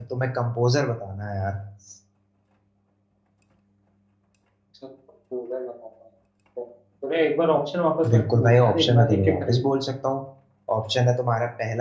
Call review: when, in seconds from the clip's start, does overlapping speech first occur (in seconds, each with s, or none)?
8.0 s